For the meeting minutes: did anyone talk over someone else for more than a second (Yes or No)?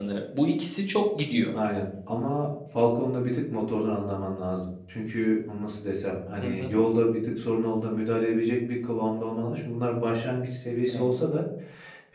No